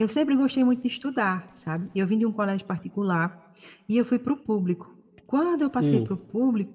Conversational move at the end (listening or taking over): listening